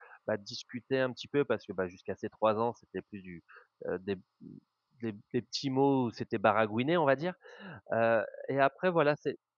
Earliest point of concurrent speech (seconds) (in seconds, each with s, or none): none